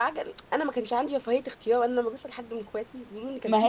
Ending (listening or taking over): taking over